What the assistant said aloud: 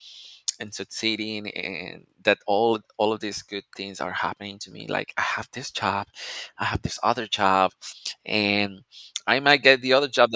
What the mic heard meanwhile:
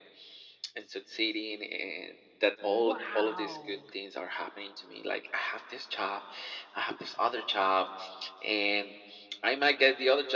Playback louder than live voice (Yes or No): Yes